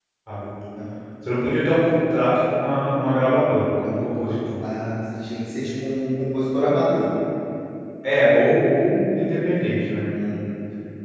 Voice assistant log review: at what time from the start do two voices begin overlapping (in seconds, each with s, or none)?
none